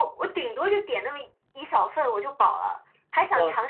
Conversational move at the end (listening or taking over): listening